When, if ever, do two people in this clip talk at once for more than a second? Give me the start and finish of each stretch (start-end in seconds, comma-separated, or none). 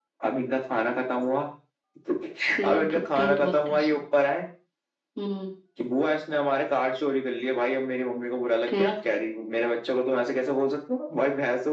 2.6-4.0